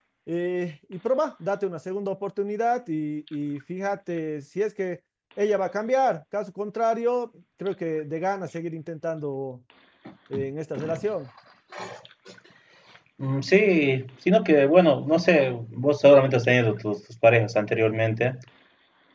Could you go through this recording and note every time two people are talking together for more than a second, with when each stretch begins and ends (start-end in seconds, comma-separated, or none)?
none